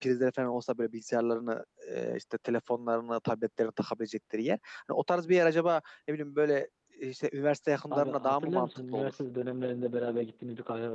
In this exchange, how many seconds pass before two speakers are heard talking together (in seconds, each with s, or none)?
7.9 s